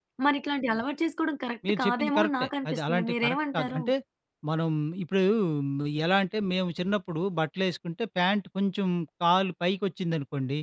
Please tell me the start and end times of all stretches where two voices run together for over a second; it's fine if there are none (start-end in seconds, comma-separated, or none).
1.7-3.8